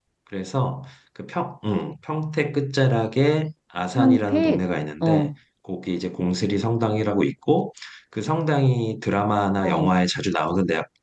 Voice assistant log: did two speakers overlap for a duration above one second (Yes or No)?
Yes